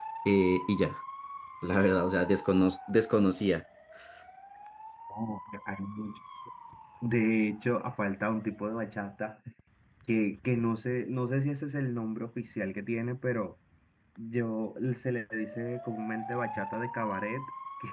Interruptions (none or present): none